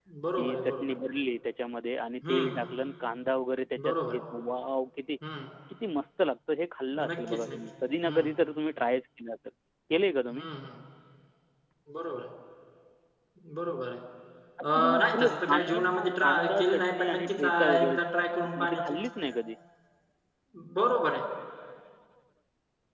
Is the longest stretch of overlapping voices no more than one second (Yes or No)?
No